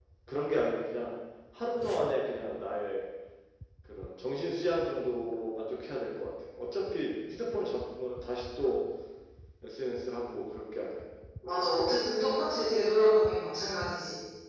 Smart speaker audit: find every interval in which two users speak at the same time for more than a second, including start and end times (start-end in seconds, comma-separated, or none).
none